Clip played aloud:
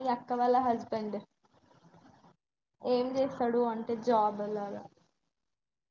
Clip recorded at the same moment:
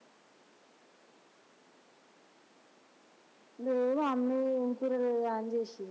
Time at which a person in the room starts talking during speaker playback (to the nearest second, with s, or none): 4 s